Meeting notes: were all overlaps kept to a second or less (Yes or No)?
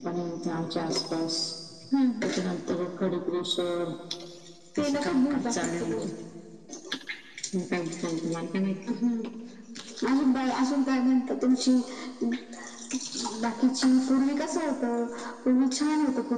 No